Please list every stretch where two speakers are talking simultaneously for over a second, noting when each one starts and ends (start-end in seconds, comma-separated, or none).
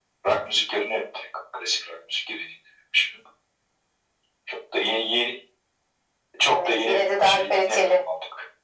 6.5-8.0